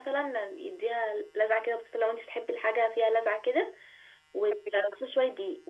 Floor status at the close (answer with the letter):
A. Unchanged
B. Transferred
A